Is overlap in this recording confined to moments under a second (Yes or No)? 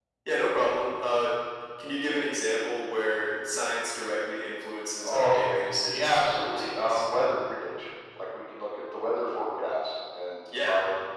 No